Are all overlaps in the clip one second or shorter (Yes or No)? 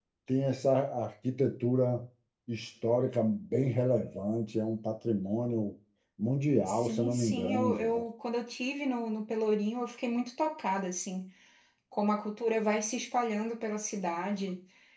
No